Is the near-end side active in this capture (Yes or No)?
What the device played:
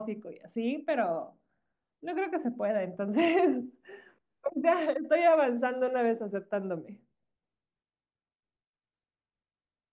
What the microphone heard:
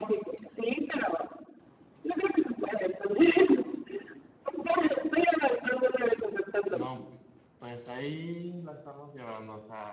Yes